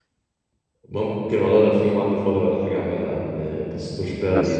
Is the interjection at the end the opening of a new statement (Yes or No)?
No